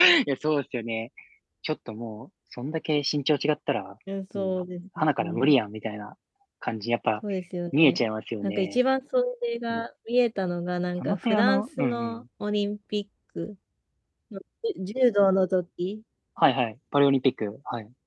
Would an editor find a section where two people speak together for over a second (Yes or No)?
Yes